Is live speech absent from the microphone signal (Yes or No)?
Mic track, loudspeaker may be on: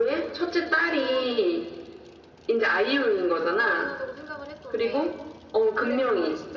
No